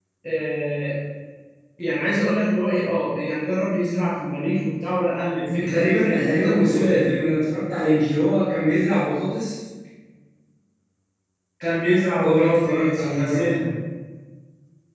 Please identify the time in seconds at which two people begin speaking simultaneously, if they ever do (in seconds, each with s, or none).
5.6 s